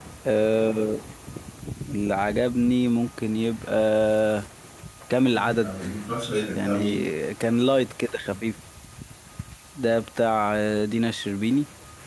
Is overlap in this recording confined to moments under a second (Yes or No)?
Yes